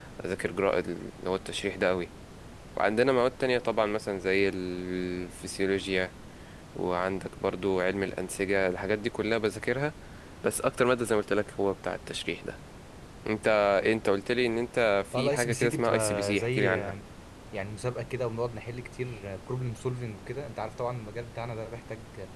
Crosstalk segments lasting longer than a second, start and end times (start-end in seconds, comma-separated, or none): 15.1-16.9